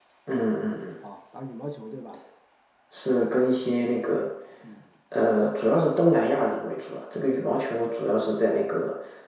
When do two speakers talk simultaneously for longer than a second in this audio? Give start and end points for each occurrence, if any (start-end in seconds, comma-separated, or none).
none